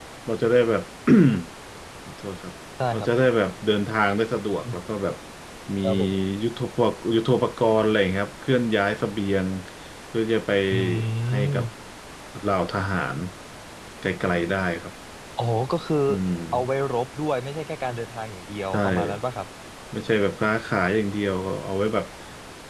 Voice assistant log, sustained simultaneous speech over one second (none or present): none